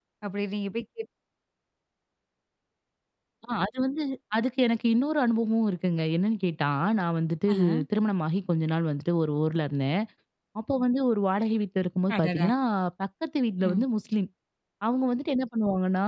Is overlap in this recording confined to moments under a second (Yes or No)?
Yes